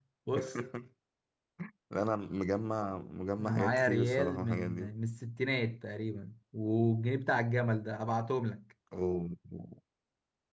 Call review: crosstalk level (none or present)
present